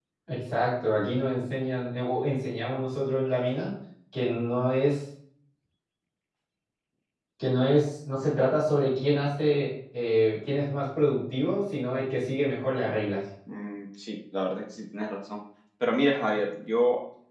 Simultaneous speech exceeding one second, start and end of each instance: none

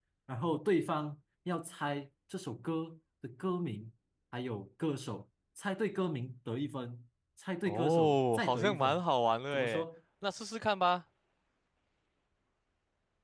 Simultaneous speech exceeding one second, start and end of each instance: 7.6-9.0

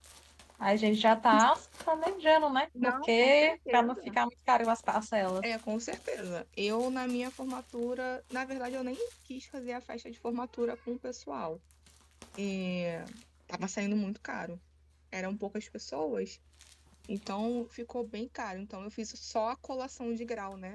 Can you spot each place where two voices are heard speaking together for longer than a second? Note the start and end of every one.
2.8-4.2

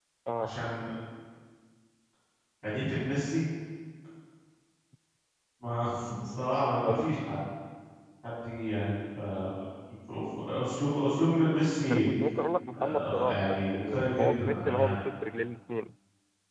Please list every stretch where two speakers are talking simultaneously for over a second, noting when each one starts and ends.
12.8-14.9

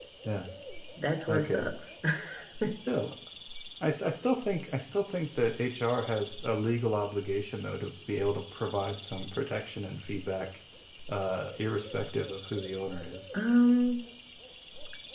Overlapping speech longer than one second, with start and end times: none

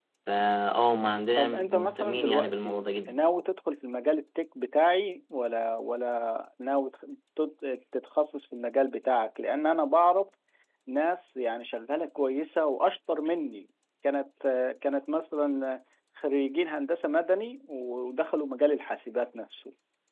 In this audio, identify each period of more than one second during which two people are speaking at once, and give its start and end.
1.4-3.2

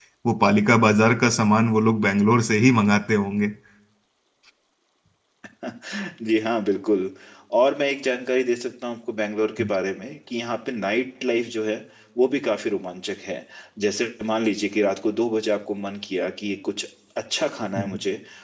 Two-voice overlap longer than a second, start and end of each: none

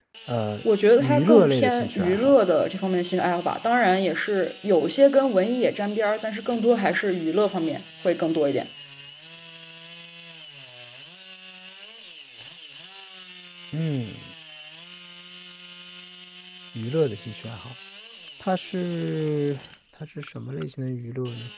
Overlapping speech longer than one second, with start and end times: 1.0-2.3

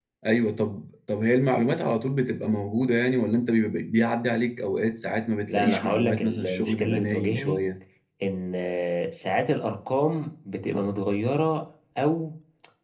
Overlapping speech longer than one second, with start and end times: 5.5-7.6

